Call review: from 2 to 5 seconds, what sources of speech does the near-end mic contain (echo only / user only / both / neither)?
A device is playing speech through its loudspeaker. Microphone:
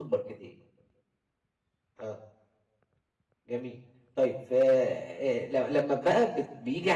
user only